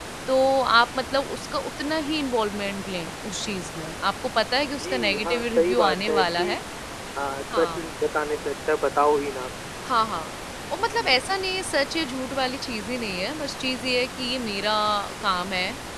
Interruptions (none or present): present